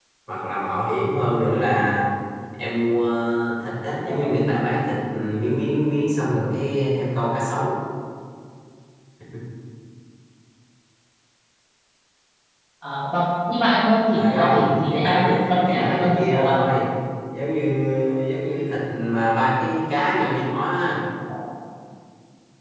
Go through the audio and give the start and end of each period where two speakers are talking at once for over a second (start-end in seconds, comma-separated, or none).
14.1-16.6